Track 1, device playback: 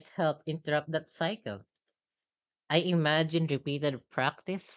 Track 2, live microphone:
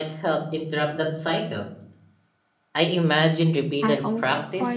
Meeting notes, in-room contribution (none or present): present